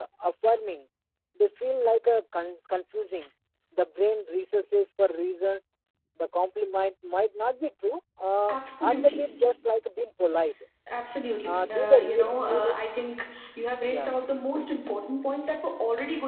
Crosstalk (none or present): present